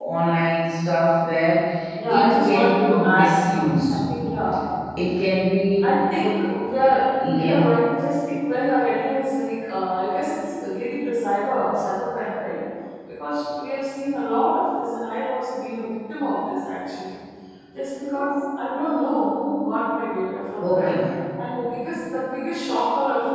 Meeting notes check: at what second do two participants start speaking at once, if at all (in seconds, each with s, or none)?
2.1 s